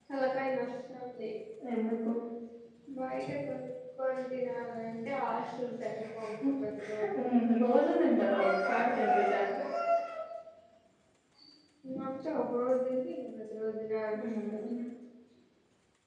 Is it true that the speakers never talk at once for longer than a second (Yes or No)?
Yes